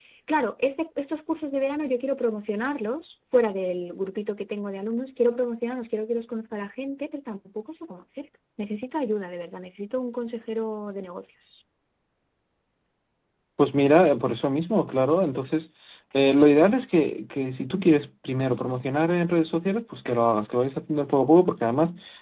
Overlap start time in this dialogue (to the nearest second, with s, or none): none